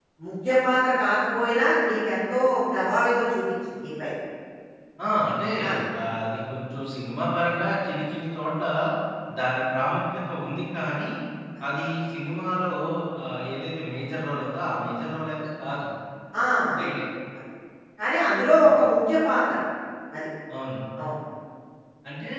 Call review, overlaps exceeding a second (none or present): none